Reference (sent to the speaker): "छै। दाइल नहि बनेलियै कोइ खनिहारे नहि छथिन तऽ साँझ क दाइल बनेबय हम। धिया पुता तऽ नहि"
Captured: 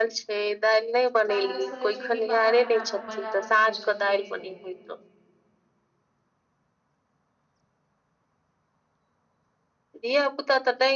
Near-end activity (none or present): present